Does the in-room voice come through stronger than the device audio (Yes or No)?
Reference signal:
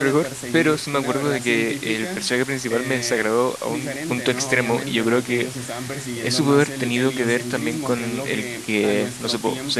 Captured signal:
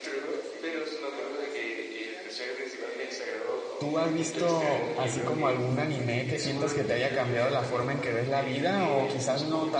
Yes